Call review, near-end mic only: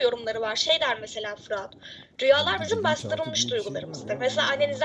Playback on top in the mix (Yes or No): Yes